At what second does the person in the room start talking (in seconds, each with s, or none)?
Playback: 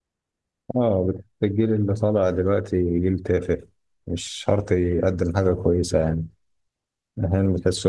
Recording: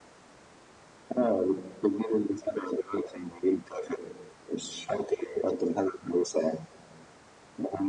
none